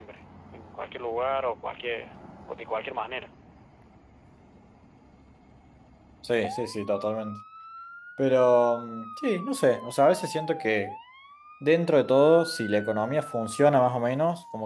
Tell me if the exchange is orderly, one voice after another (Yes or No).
Yes